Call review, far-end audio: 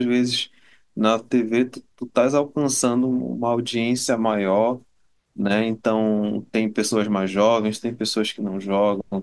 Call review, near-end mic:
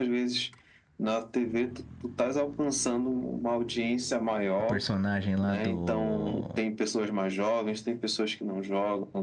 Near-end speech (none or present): present